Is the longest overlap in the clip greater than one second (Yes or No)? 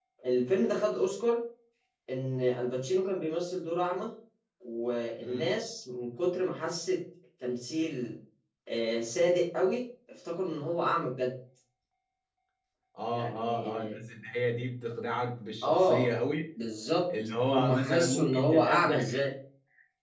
Yes